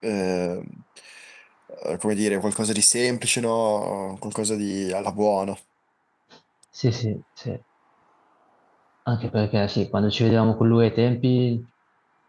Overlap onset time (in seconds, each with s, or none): none